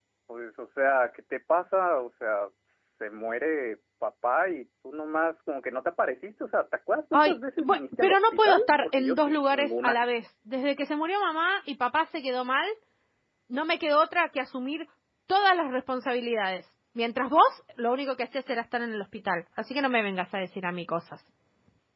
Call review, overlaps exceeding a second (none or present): present